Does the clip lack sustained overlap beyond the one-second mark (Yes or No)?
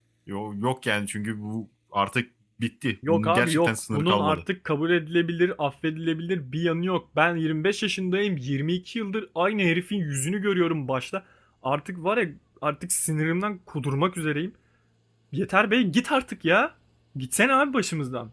No